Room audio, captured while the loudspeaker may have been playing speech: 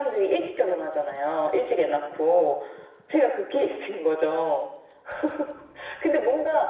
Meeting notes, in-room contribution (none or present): none